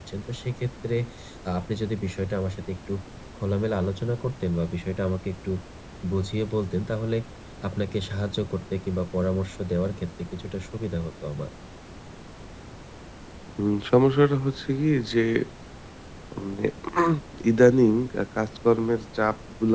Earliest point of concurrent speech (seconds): none

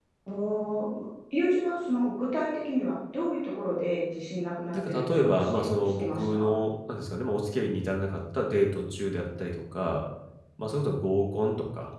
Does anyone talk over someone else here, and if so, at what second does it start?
4.7 s

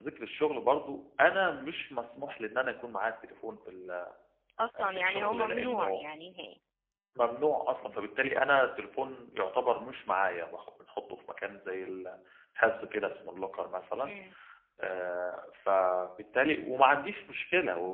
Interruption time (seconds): 4.8 s

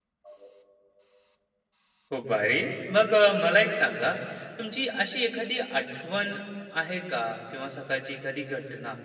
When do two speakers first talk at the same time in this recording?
none

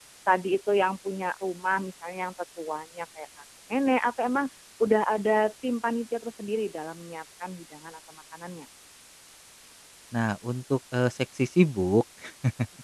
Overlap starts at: none

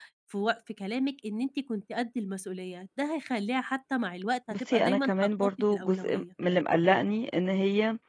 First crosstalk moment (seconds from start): 4.5 s

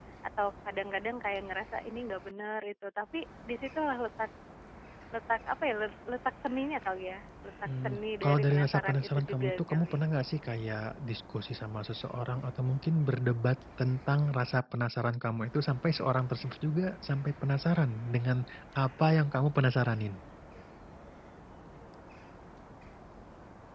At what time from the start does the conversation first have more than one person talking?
7.7 s

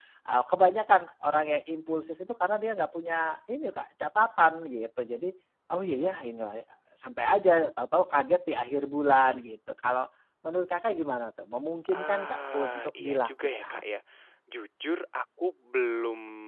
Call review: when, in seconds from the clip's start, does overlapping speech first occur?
11.8 s

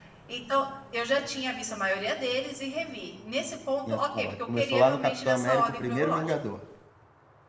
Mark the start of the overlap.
3.8 s

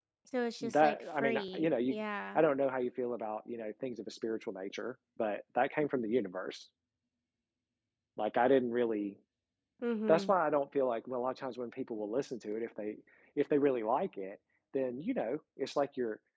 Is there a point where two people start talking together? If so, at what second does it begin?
0.6 s

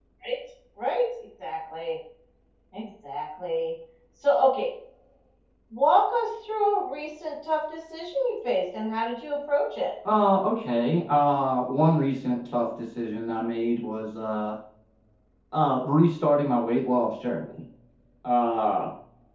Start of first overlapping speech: none

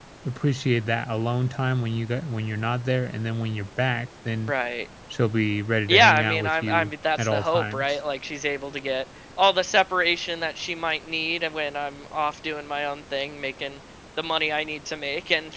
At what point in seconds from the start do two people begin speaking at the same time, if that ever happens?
5.9 s

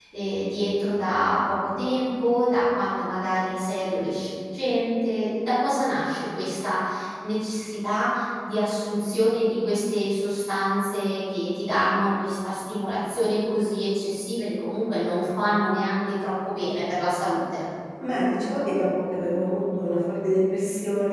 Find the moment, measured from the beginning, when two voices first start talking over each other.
none

